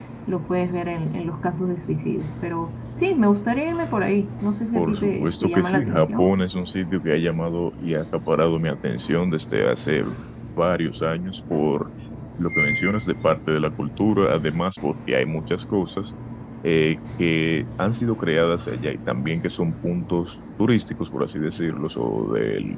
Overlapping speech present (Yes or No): Yes